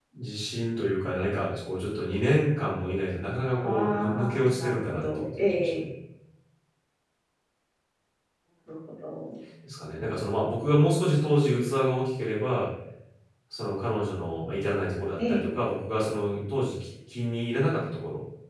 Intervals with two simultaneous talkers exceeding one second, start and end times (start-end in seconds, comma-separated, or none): 3.5-5.9